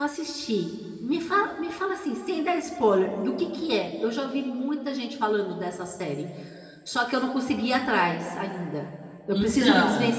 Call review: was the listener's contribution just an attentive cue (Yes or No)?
Yes